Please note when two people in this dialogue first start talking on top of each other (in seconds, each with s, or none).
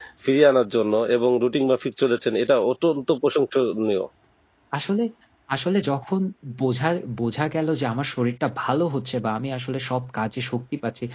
none